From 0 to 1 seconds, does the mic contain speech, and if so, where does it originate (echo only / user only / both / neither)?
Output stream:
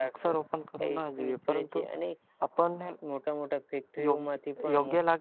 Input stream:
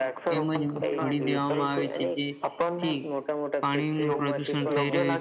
both